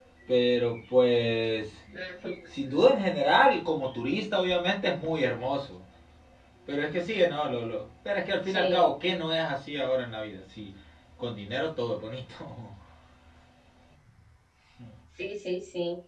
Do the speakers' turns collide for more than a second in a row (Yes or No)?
No